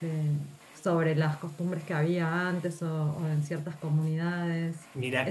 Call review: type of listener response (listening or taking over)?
taking over